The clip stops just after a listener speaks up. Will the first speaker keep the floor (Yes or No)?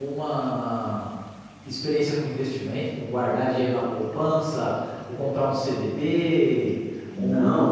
No